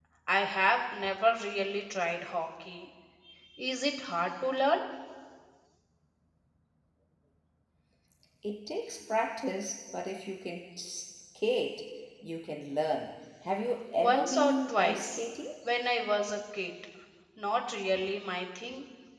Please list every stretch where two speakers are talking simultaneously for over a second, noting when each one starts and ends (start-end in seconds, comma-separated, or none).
14.0-15.2